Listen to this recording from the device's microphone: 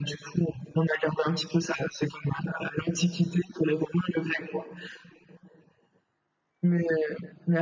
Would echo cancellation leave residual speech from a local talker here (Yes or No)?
No